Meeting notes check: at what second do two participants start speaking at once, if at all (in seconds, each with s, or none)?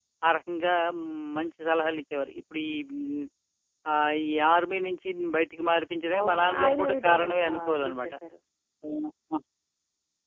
6.1 s